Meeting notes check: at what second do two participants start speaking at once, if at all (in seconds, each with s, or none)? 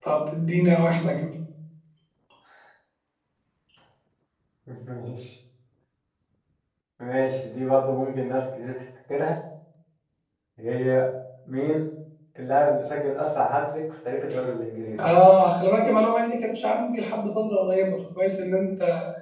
none